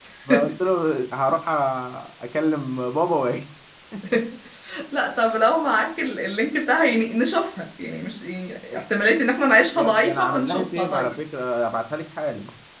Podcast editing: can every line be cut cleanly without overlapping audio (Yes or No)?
No